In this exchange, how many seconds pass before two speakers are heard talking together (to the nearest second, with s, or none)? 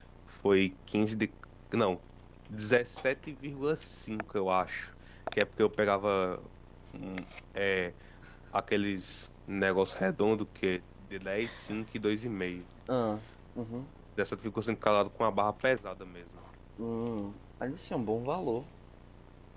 none